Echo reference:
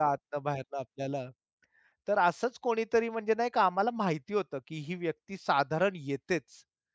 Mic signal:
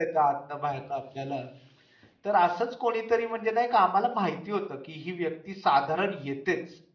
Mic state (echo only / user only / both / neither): echo only